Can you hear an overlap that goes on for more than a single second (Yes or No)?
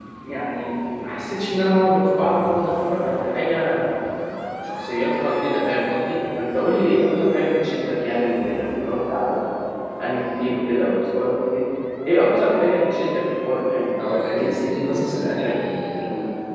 Yes